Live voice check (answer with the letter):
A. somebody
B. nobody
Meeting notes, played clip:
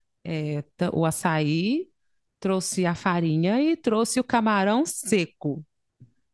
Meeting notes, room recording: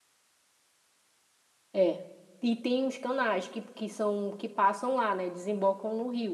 A